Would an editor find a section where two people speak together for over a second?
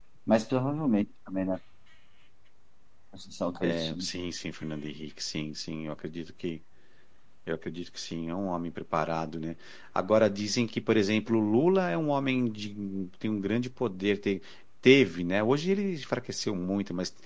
No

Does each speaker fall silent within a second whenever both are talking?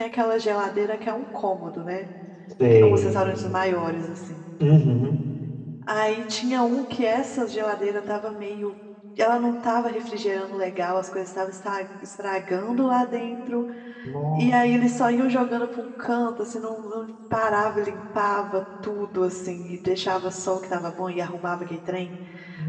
Yes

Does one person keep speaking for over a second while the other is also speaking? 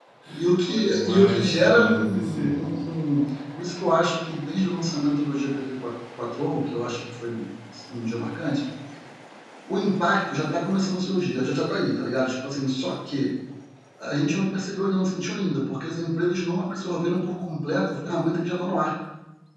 Yes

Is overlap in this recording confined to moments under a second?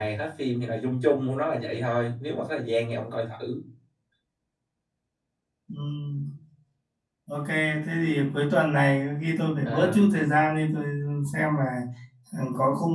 Yes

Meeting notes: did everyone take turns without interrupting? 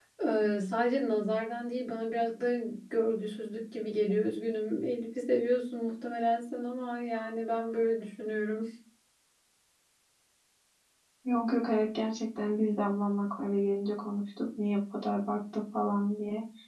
Yes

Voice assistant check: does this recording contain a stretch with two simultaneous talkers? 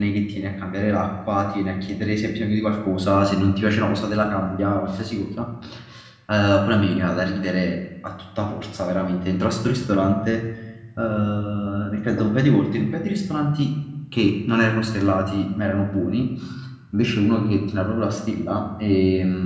No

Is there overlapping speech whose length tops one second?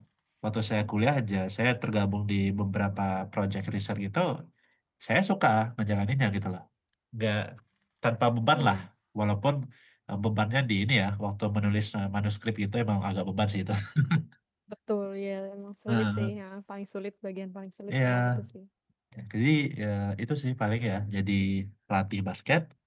No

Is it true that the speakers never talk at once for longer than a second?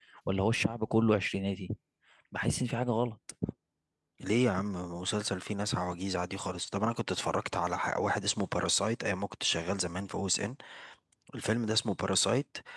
Yes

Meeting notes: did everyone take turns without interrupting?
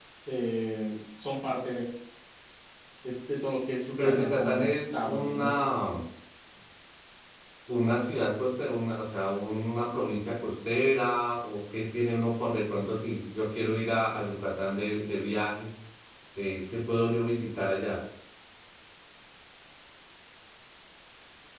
No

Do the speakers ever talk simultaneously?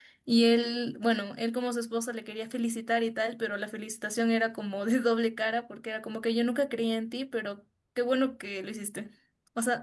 No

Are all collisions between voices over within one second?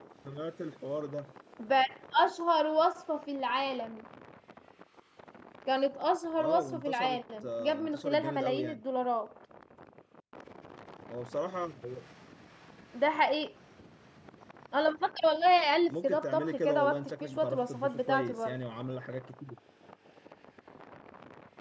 No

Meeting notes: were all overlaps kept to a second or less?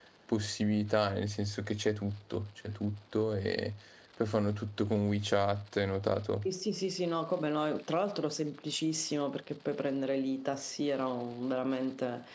Yes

